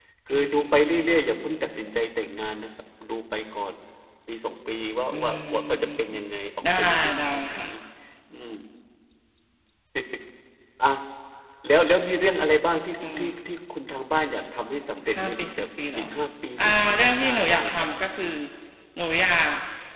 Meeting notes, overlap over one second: present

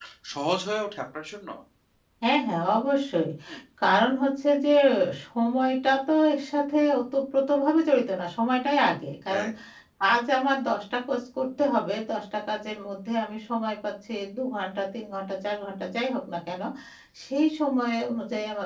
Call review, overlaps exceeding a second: none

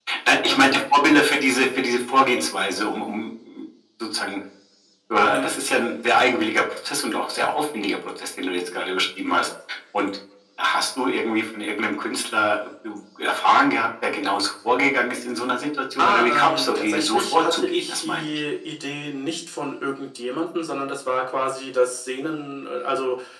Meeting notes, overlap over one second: present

